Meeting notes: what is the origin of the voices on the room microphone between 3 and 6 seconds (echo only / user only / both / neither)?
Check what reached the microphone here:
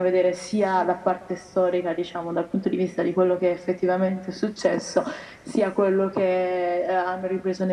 echo only